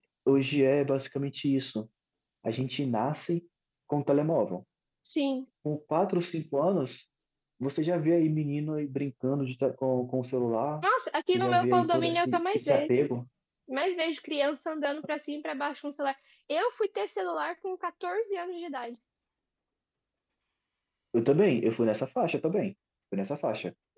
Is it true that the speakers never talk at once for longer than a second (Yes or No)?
No